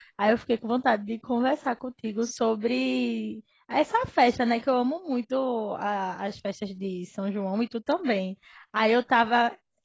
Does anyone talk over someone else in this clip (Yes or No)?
No